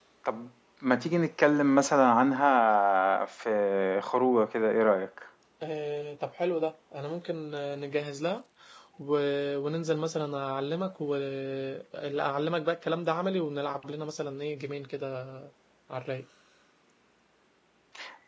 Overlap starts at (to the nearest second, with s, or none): none